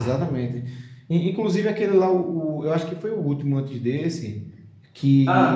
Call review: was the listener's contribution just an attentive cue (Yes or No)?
Yes